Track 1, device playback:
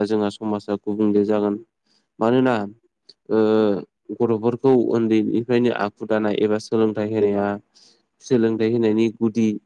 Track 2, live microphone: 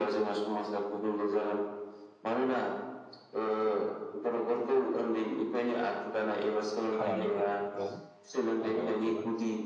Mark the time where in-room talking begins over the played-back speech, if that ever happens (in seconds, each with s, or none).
6.9 s